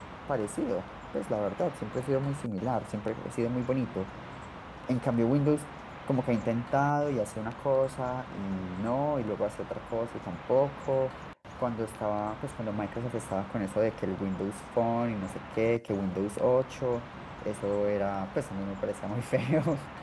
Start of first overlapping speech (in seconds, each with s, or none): none